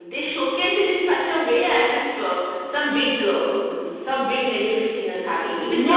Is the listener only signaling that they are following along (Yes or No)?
No